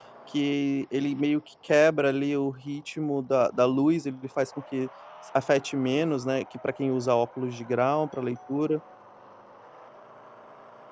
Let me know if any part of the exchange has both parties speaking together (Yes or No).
No